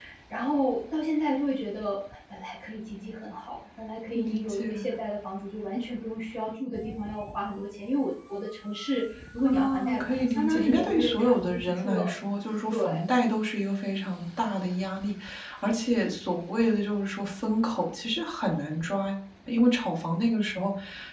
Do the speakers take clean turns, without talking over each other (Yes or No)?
No